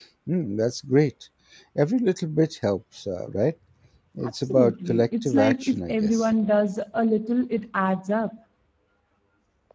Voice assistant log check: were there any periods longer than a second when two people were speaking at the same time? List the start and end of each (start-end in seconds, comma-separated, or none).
4.2-6.2